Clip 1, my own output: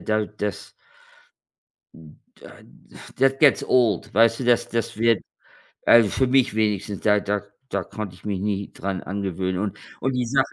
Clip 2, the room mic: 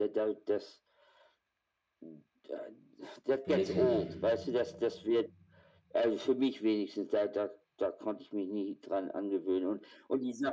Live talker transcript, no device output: wirklich.

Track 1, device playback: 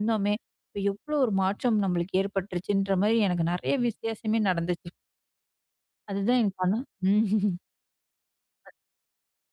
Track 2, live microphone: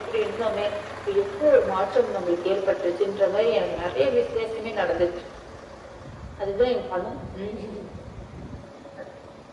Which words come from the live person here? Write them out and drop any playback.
none

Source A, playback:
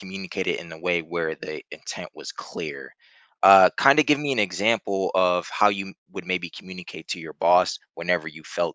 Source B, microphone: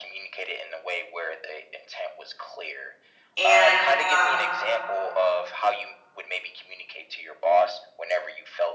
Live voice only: And, um,

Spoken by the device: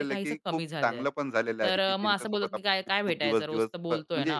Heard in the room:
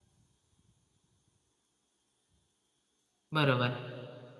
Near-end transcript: बरोबर,

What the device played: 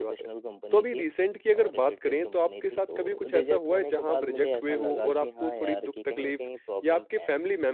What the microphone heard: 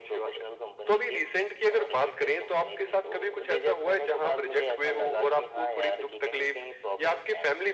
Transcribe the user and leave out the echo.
none

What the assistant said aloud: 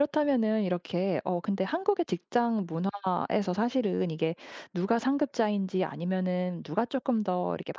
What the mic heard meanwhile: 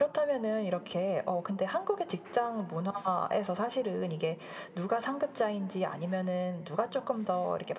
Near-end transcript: none

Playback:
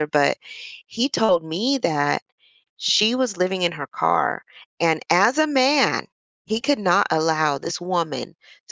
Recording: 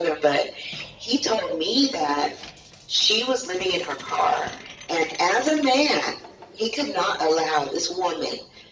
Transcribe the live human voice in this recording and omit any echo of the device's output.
none

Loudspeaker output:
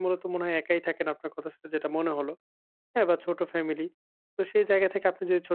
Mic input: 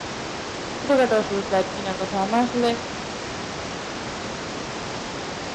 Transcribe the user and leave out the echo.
ছোটখাটো আসলে ফ্ল্যাট কিনার কথা। আমার আসলে

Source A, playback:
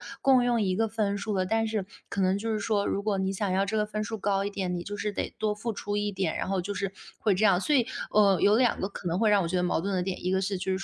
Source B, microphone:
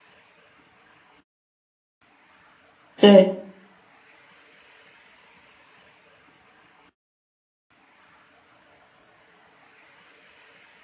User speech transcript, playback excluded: 对，

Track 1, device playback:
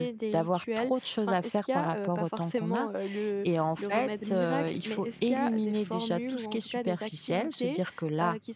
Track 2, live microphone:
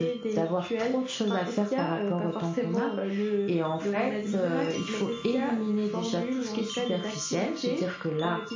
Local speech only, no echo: none

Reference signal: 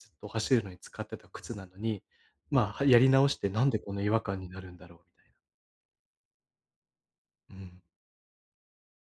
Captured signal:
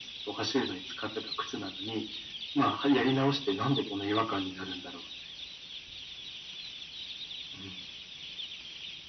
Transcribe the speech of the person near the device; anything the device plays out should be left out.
none

